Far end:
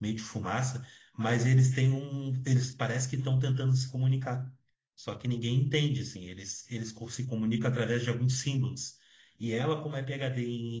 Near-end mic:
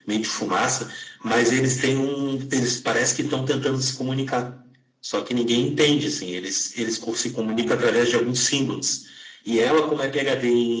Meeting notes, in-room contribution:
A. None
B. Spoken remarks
A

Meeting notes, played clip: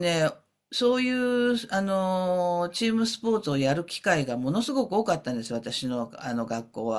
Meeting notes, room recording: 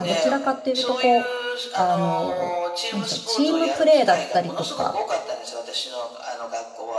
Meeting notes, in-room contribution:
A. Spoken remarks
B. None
A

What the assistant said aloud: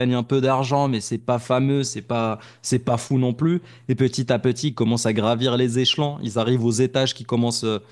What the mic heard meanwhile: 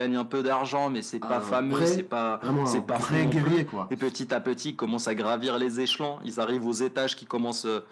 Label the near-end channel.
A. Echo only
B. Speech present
B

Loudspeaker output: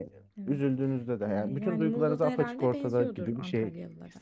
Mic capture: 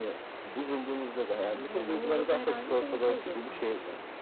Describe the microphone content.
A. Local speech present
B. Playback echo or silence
B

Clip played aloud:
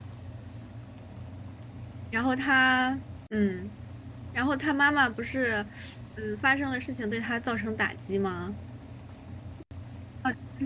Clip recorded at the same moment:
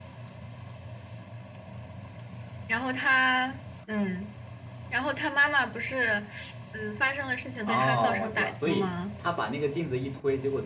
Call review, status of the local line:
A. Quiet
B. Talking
B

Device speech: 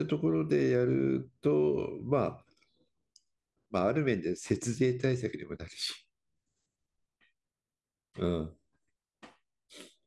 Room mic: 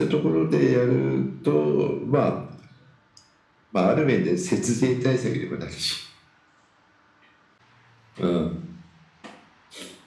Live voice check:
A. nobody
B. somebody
A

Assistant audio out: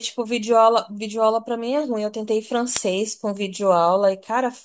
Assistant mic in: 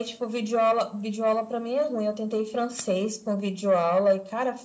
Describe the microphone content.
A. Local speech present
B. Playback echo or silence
B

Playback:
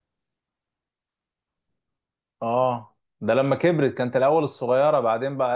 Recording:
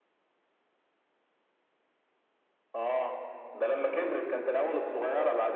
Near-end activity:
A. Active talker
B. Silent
B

